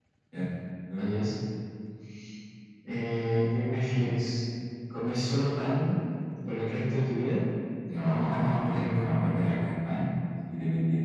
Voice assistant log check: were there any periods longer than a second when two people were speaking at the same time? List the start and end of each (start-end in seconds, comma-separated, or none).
8.0-9.4